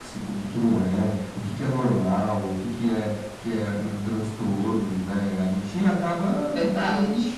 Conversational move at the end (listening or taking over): listening